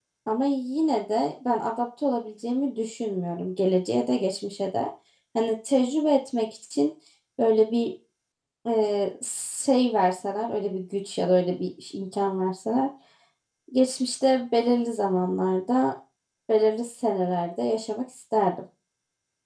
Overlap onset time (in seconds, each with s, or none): none